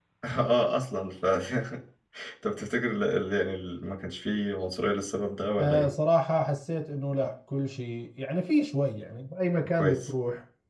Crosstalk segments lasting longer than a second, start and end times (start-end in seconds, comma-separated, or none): none